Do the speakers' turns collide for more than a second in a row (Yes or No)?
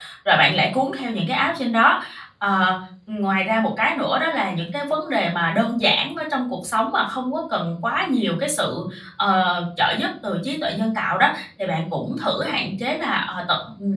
No